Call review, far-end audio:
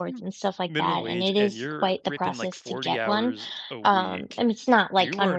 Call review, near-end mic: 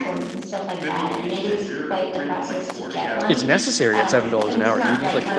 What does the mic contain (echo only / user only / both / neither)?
both